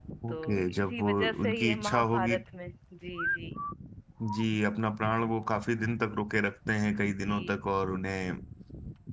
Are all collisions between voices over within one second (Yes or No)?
No